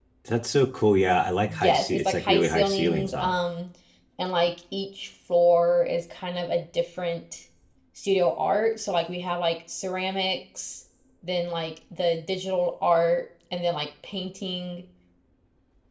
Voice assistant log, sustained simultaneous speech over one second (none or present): present